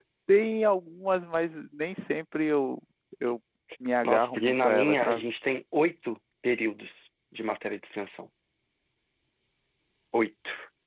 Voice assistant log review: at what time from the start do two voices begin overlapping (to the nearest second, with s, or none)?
4 s